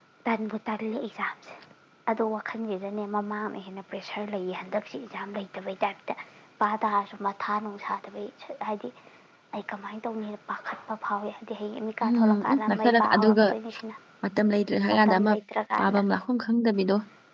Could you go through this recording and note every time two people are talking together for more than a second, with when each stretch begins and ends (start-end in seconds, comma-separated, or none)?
12.0-13.4